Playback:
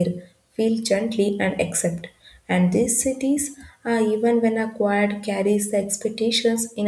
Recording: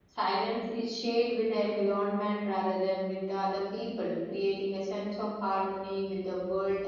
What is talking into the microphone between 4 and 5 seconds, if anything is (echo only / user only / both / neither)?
user only